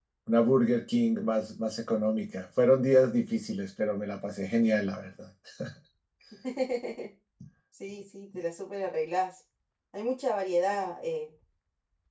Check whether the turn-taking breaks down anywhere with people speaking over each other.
No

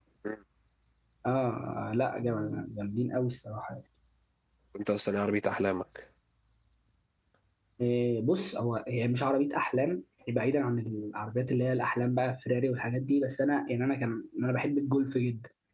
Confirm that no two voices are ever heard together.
Yes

